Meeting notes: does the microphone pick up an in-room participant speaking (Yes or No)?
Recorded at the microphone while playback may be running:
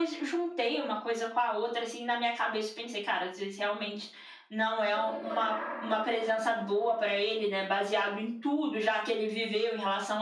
Yes